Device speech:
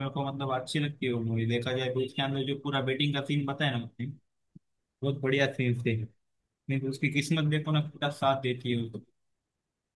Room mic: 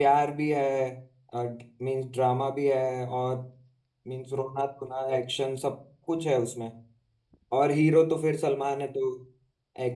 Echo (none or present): none